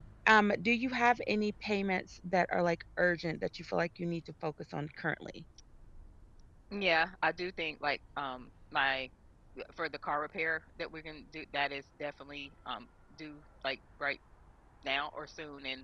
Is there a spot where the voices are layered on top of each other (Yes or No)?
No